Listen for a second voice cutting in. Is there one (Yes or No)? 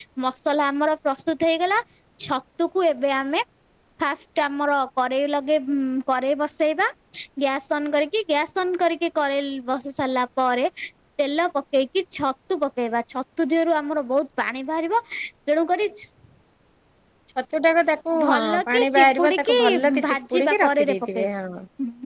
Yes